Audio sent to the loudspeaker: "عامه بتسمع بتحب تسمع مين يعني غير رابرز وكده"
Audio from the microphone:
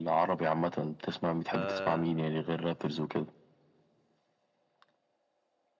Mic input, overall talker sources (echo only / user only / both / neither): both